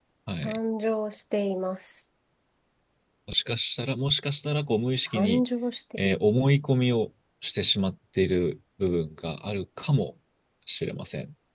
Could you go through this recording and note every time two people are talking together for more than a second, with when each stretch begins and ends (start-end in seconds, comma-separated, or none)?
none